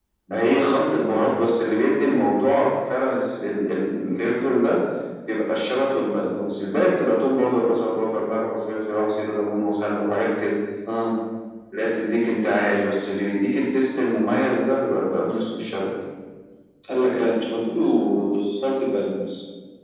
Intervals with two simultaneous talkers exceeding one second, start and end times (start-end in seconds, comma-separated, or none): none